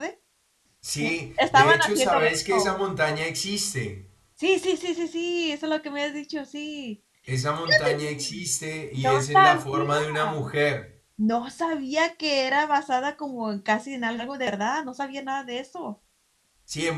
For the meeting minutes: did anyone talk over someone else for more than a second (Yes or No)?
Yes